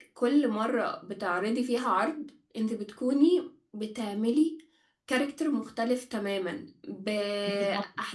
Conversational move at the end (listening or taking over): listening